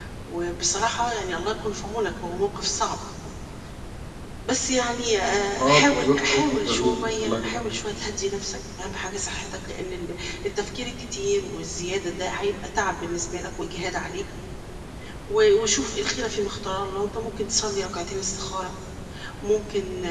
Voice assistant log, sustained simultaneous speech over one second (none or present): present